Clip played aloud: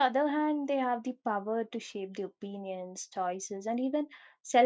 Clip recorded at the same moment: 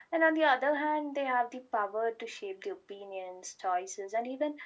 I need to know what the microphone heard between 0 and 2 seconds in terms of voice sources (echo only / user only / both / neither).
echo only